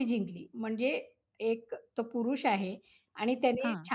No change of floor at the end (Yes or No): Yes